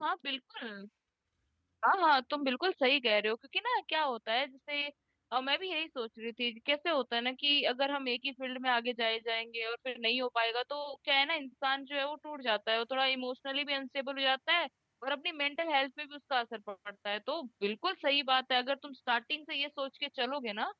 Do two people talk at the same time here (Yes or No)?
No